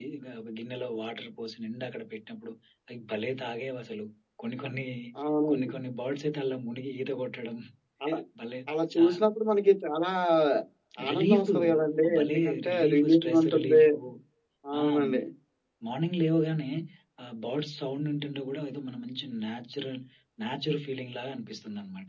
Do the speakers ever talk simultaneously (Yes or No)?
Yes